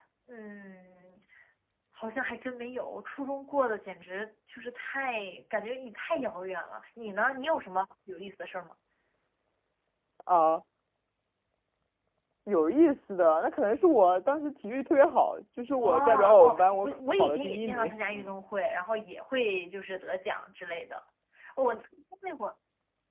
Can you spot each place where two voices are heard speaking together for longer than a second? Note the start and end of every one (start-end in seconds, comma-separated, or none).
15.8-17.9